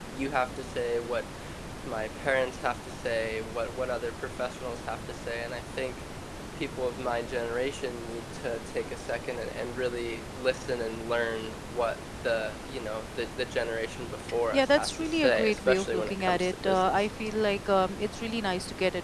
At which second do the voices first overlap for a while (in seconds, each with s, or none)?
14.5 s